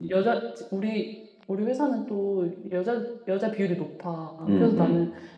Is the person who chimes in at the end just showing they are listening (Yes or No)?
Yes